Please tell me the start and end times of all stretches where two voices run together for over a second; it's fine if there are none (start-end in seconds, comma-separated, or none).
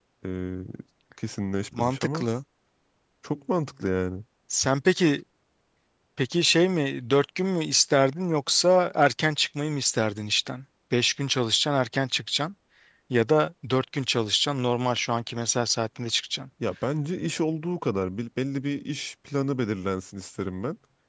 none